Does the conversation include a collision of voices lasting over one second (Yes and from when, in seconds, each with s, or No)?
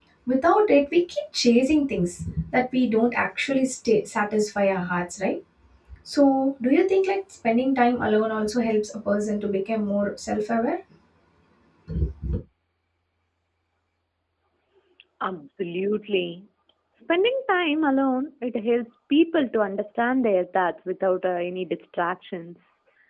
No